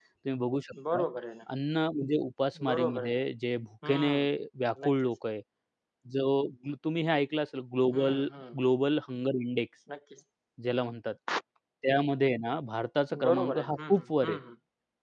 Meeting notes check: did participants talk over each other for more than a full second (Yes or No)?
Yes